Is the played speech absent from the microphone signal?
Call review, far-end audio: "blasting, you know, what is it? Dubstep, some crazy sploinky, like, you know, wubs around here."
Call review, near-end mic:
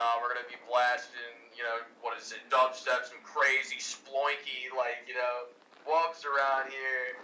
No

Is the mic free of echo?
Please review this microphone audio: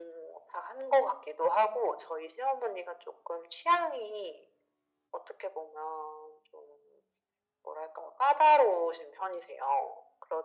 No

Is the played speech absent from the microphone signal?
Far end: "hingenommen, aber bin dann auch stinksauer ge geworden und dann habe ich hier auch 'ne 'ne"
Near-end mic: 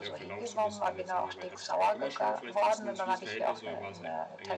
No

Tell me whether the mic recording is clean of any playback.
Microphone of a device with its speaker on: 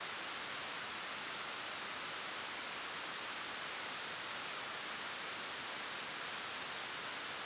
Yes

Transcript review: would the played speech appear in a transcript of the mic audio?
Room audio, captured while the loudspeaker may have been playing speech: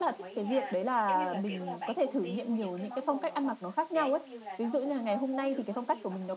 Yes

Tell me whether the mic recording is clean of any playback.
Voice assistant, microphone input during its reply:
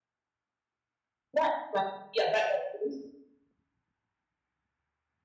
Yes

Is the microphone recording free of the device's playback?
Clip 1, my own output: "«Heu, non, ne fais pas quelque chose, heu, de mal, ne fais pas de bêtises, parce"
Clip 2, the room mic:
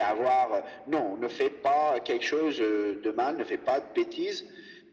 No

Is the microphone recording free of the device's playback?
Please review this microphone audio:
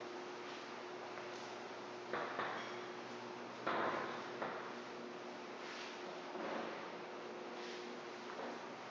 Yes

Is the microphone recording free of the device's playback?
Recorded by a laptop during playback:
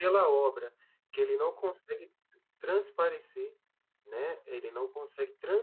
Yes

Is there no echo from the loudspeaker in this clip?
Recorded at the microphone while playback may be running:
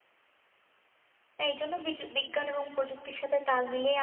Yes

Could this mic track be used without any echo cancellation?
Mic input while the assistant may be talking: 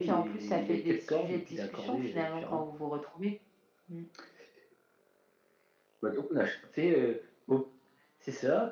No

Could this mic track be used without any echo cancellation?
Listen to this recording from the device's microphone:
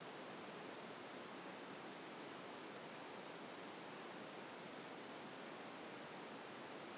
Yes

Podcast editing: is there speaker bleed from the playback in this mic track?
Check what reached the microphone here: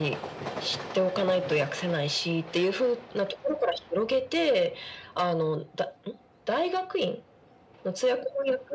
Yes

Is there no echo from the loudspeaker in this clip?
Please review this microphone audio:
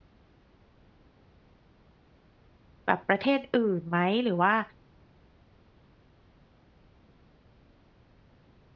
Yes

